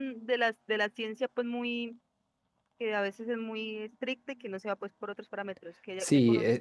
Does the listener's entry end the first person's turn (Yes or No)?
Yes